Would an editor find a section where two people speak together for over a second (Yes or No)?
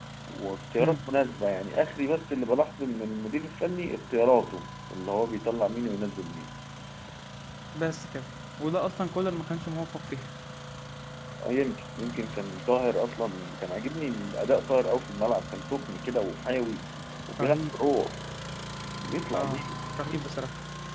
No